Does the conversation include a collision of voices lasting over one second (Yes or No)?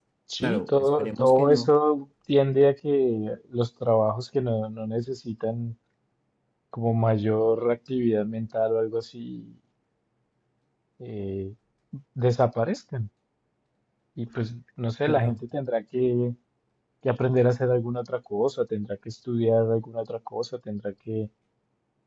Yes